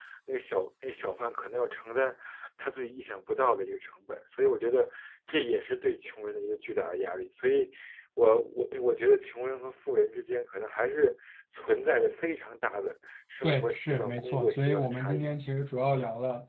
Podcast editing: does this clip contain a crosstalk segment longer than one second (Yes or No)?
Yes